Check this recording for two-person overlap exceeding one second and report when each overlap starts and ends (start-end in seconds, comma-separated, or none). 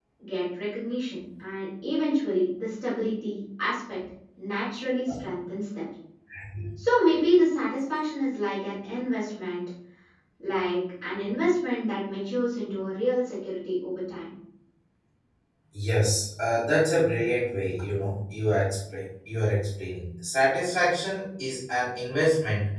none